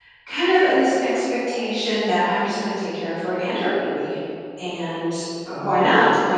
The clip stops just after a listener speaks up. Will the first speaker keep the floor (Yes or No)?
Yes